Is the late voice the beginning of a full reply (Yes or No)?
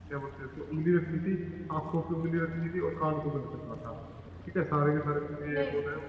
No